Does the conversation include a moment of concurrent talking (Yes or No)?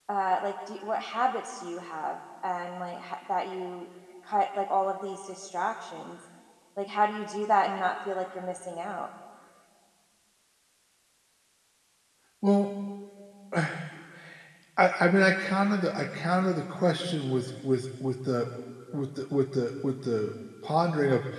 No